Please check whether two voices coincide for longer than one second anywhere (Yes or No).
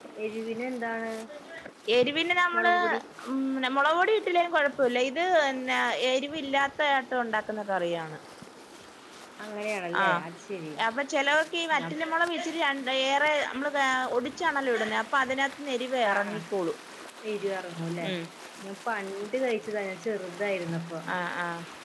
No